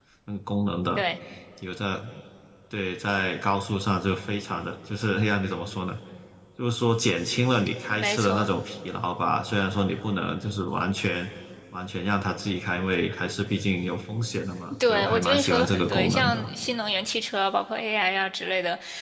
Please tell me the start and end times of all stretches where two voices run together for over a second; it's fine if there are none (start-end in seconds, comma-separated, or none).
14.9-16.4